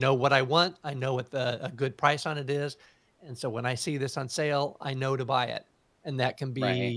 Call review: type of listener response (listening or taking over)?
listening